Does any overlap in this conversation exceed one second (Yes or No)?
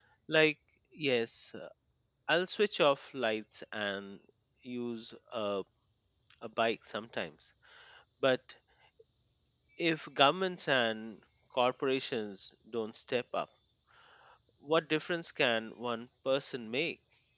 No